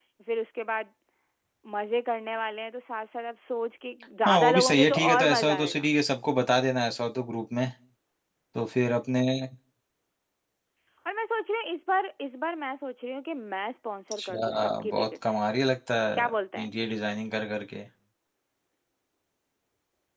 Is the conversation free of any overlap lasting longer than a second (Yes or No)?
No